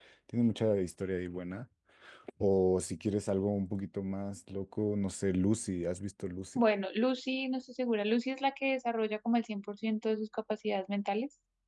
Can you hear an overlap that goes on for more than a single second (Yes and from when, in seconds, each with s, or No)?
No